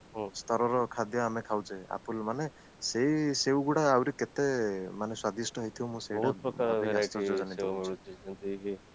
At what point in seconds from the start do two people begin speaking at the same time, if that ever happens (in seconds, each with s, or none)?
6.1 s